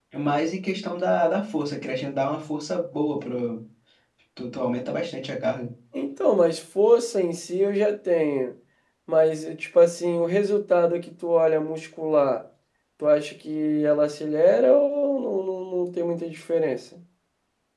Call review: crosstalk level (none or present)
none